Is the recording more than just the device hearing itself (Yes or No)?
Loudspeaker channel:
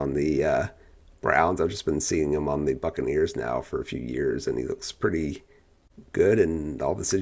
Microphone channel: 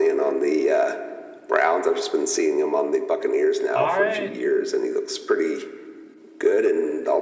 Yes